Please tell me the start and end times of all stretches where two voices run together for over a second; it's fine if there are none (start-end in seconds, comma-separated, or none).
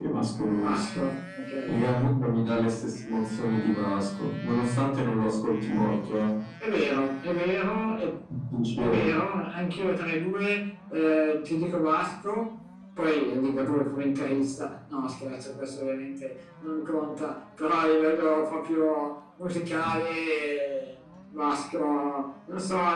none